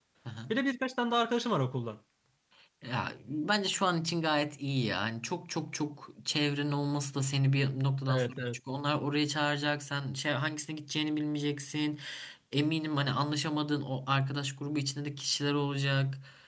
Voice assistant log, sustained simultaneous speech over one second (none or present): none